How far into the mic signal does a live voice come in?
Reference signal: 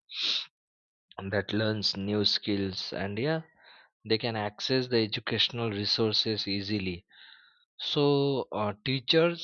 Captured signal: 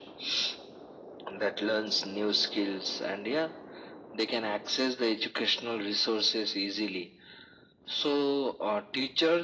none

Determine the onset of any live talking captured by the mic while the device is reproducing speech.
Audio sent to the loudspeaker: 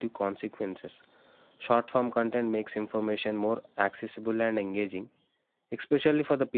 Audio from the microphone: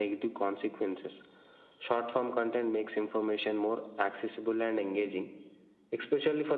none

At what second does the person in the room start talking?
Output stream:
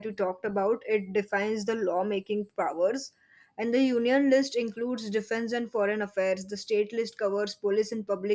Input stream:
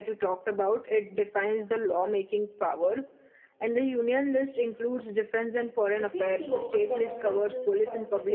6 s

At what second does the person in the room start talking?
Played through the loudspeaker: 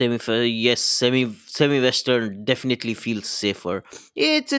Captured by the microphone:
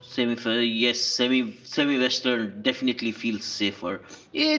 none

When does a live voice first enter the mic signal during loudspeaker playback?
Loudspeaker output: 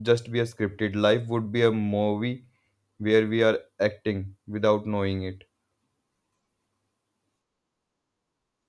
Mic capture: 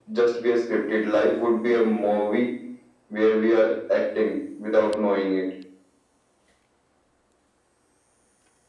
none

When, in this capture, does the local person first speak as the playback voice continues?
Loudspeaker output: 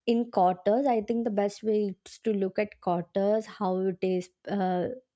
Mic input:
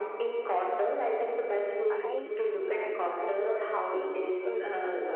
2 s

